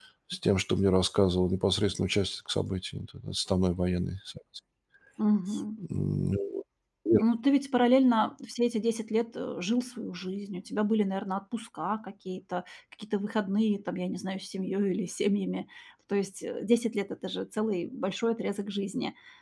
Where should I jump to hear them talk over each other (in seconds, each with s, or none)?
none